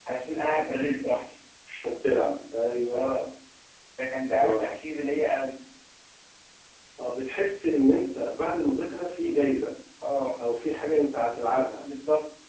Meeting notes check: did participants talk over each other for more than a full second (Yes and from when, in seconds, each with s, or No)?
No